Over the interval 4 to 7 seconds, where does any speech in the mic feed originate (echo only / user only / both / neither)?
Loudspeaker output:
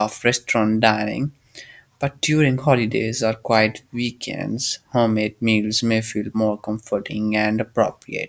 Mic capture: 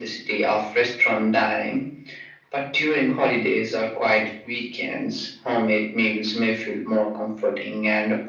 echo only